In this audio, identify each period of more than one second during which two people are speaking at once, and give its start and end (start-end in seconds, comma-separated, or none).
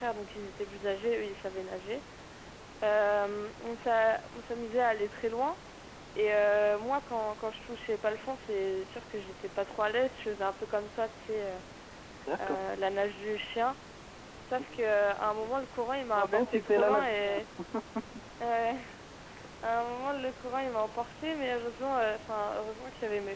16.1-17.4